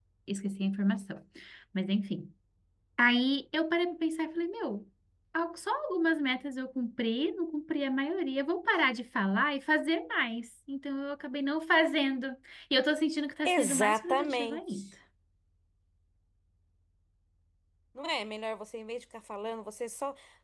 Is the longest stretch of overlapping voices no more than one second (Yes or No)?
No